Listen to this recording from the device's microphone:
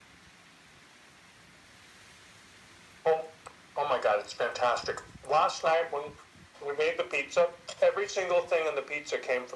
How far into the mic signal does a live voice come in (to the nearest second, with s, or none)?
none